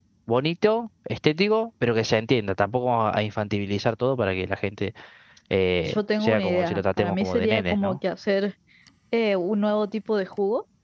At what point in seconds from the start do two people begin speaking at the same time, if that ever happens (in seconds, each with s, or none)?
5.9 s